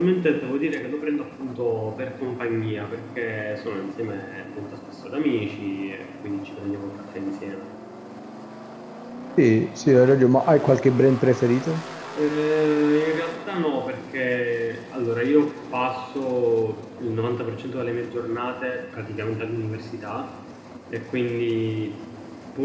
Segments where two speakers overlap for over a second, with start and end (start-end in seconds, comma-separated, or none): none